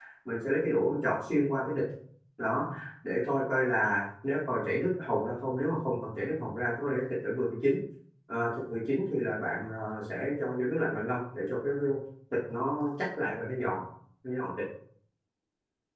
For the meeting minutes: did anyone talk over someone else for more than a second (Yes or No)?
No